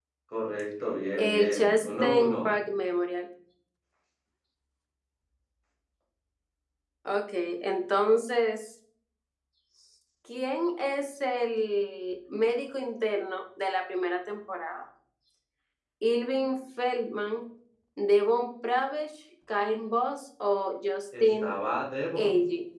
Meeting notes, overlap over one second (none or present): present